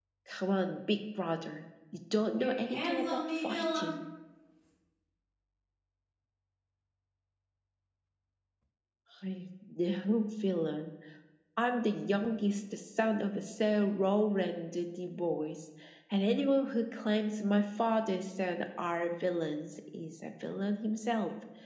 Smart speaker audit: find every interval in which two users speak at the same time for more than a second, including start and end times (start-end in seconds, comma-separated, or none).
2.4-3.9